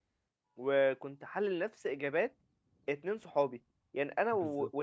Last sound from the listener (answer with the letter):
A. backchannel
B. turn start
A